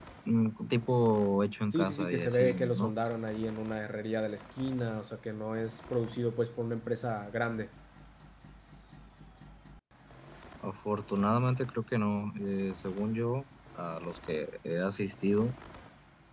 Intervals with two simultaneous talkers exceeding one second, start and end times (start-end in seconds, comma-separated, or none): 1.7-2.9